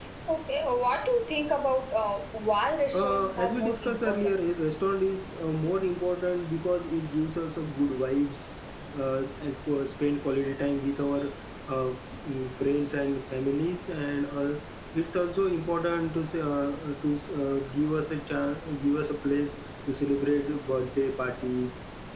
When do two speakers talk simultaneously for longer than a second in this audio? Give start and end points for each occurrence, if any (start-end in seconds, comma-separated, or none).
2.9-4.4